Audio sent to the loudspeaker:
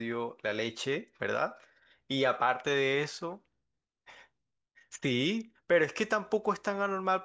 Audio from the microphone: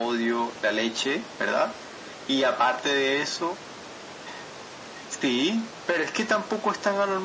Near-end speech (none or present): none